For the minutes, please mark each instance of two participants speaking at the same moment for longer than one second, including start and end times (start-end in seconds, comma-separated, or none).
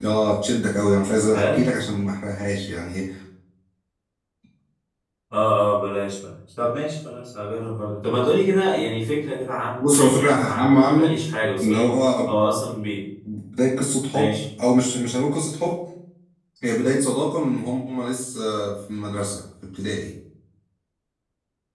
9.8-11.2